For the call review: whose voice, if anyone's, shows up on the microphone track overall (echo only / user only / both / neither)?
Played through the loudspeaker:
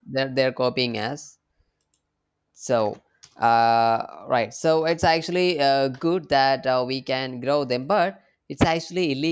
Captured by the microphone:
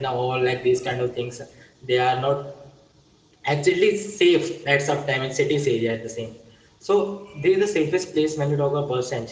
user only